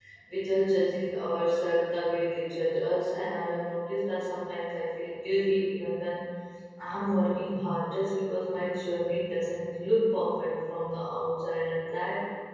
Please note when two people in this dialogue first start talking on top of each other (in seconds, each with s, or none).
none